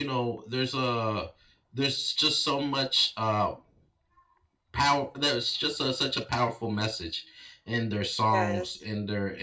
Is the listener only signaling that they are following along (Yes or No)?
Yes